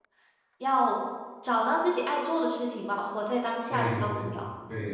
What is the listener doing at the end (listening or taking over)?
taking over